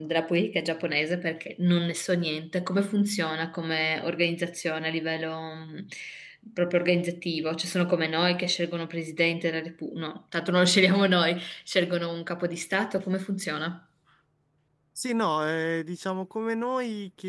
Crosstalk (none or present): none